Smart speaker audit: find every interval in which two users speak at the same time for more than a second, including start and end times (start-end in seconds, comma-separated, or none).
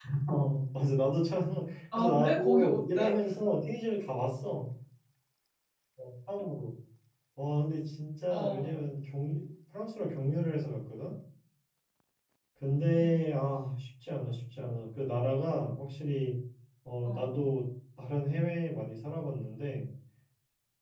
1.9-3.2